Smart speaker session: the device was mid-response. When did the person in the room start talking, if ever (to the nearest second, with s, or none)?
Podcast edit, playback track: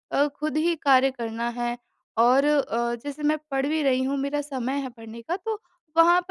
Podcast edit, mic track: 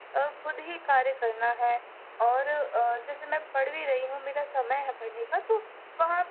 none